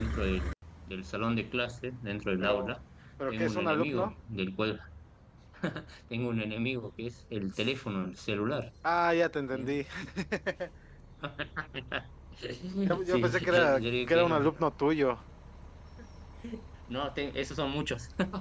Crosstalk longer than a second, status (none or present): present